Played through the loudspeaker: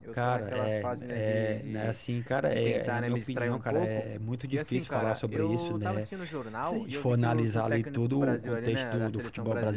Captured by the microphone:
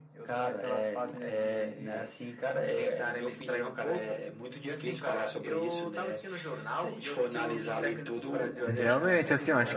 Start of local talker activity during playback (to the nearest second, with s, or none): 9 s